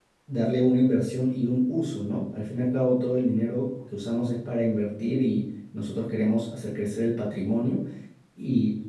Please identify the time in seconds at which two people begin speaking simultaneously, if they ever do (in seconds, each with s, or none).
none